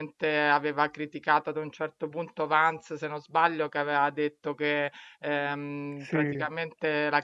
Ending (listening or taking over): listening